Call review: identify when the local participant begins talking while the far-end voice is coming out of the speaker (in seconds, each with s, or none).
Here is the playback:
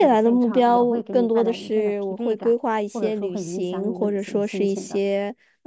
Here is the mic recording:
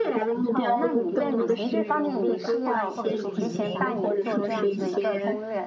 0.5 s